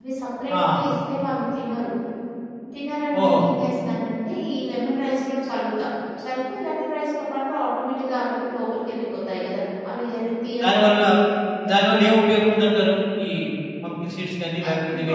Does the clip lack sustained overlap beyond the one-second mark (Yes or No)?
Yes